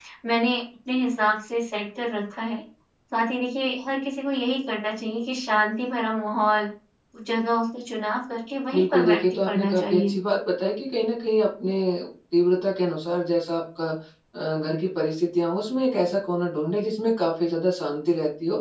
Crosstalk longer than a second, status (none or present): present